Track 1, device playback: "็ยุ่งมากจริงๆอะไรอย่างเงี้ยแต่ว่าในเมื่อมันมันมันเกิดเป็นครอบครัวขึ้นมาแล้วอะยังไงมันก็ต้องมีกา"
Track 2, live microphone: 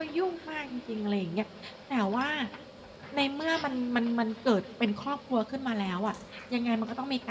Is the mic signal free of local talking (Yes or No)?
Yes